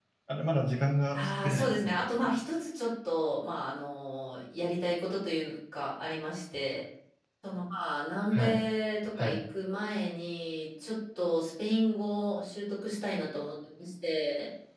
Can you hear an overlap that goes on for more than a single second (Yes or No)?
Yes